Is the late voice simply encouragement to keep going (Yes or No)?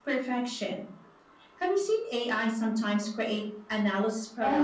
No